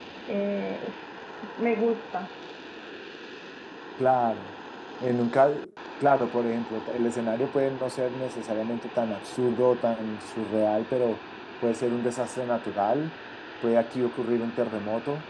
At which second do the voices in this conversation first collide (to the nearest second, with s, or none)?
none